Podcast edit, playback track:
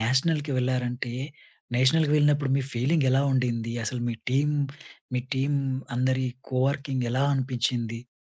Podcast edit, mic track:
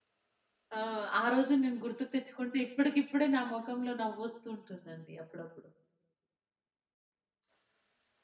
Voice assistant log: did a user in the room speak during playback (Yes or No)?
Yes